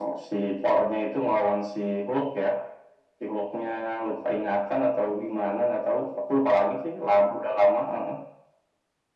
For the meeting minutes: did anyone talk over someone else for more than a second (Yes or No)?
No